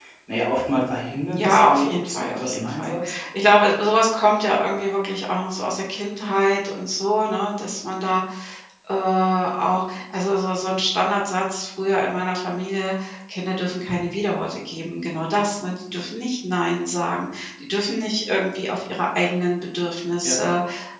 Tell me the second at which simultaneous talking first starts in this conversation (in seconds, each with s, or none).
1.3 s